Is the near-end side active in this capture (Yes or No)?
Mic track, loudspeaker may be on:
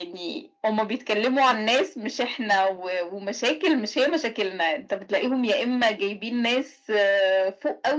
No